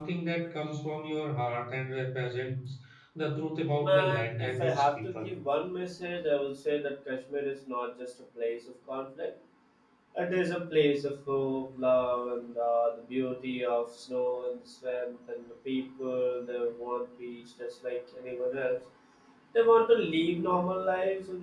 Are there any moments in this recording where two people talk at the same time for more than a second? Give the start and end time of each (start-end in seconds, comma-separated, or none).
3.8-5.3